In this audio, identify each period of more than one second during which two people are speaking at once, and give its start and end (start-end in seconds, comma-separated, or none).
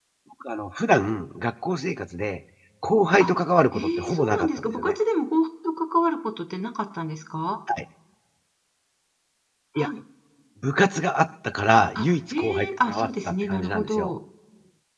3.7-4.9, 11.9-14.1